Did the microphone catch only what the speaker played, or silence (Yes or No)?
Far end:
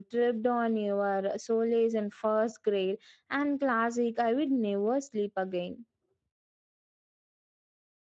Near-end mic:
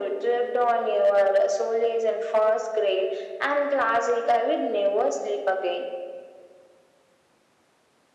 Yes